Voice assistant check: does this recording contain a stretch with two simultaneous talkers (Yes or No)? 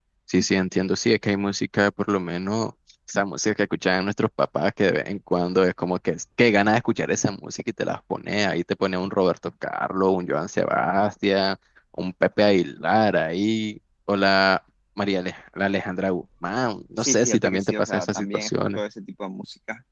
Yes